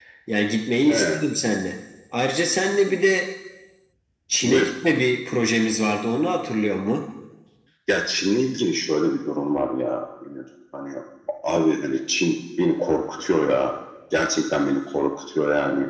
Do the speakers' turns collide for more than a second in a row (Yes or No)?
No